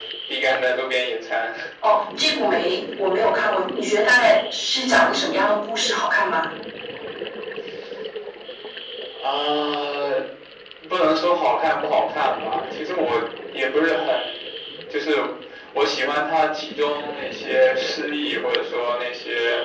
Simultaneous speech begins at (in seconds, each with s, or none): none